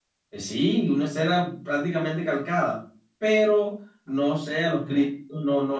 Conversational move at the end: listening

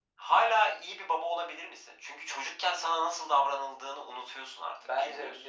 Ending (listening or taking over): taking over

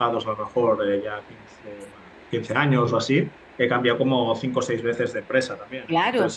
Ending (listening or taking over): taking over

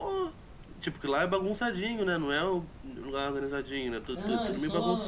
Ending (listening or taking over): taking over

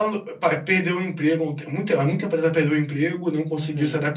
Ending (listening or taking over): listening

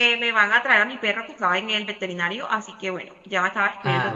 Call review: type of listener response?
listening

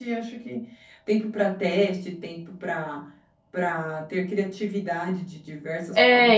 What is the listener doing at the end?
taking over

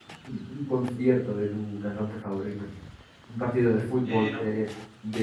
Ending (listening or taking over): listening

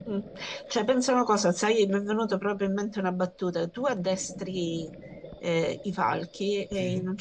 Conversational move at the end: listening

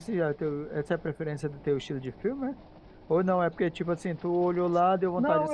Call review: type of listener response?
taking over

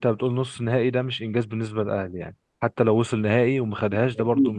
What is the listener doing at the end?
taking over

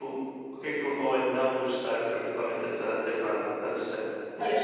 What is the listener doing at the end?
taking over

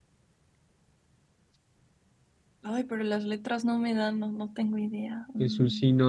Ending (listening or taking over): taking over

